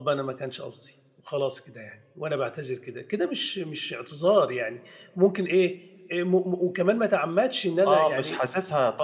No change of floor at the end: No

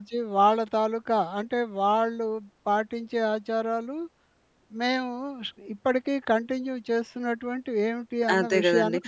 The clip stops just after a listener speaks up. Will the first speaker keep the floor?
No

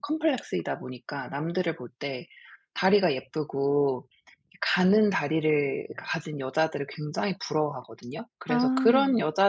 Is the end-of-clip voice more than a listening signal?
No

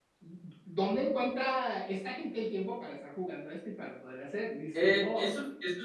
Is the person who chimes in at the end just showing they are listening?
No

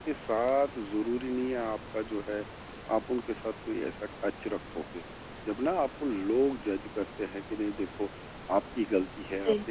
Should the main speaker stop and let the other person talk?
No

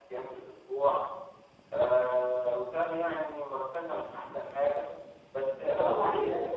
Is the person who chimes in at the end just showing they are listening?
No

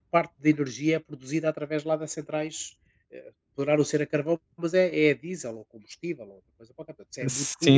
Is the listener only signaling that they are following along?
No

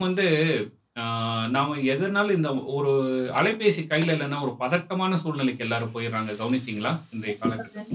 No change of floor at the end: No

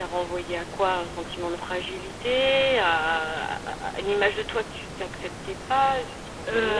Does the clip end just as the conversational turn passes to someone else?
Yes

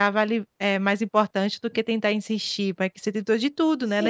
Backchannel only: No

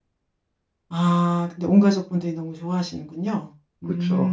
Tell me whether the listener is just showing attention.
No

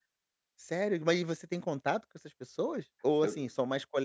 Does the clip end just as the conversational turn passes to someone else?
No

